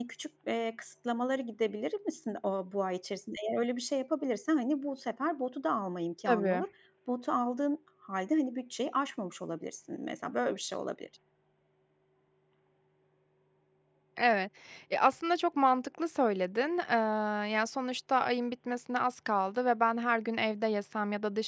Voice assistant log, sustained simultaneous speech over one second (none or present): none